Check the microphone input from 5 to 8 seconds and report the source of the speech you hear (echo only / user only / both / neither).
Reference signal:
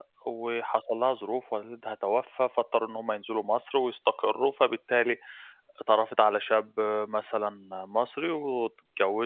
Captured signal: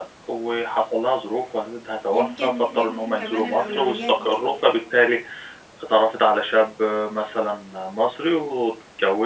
echo only